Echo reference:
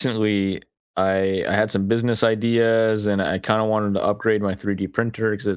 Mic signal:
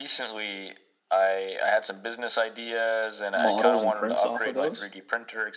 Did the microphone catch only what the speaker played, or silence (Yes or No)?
No